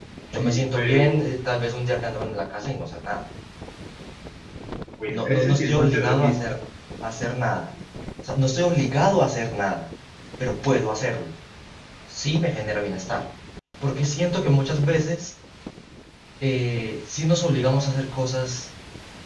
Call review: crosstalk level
present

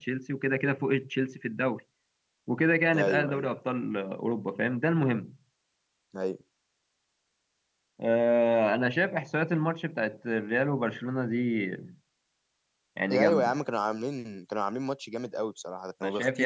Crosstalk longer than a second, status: none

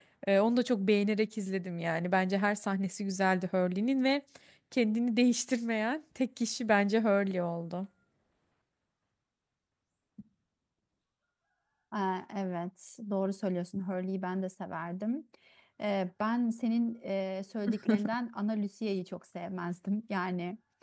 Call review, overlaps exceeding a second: none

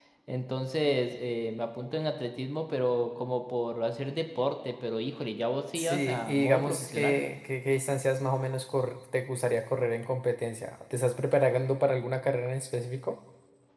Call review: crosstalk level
present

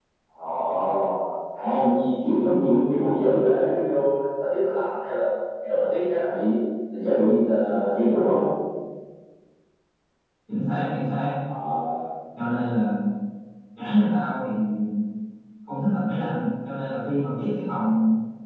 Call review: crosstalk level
none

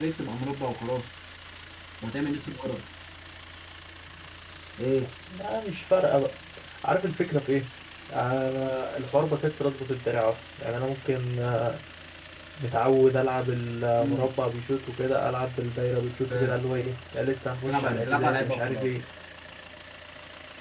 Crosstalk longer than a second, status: present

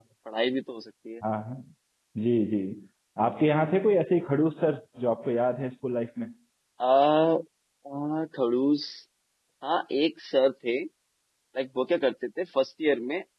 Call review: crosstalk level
none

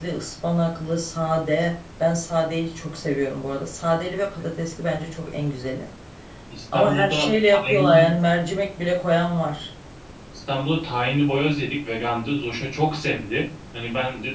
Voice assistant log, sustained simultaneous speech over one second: present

